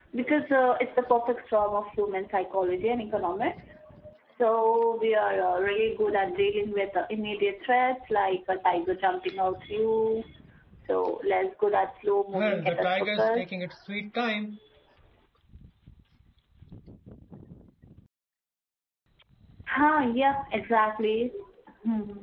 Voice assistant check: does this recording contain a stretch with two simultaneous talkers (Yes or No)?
Yes